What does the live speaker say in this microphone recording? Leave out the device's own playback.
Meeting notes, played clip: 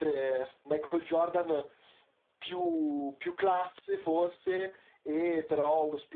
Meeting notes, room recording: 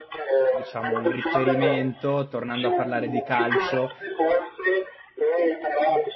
diciamo un riferimento, tornando a parlare di calcio,

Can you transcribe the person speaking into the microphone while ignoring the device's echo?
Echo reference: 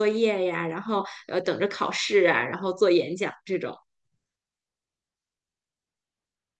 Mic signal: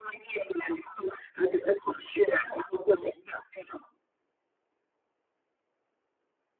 none

